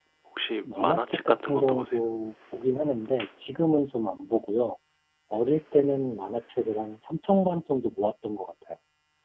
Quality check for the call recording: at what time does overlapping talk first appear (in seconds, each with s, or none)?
0.7 s